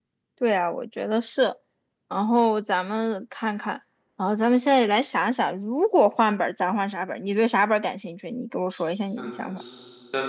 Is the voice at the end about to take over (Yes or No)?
Yes